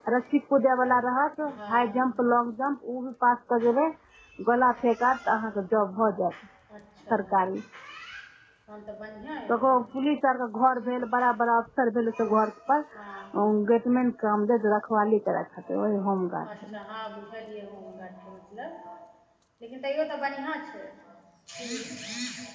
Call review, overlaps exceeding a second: none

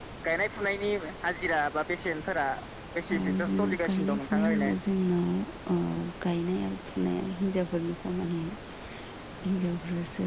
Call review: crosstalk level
present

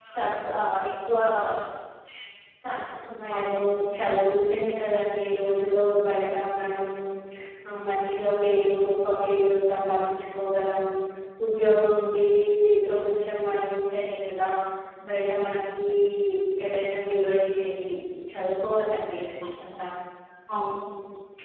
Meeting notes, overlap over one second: none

